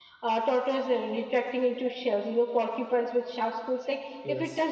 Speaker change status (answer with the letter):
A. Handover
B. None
B